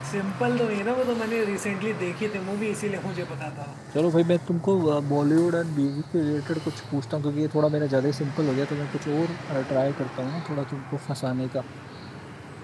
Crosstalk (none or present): none